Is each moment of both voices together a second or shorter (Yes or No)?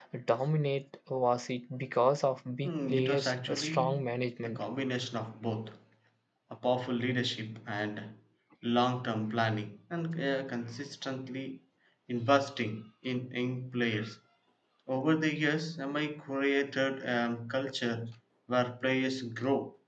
No